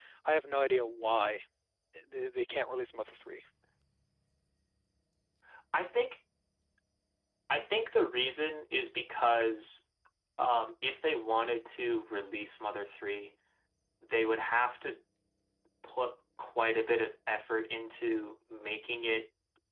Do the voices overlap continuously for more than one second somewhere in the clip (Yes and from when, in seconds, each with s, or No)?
No